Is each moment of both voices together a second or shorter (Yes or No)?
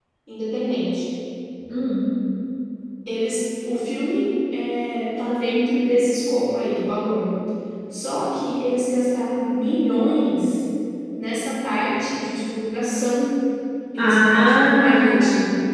No